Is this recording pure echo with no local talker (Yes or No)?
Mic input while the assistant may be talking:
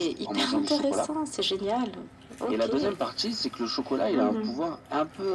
No